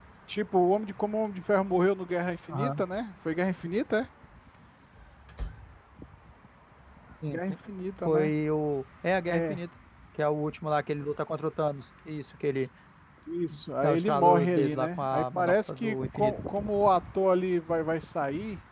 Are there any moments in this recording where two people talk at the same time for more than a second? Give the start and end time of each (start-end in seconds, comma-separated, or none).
13.8-16.3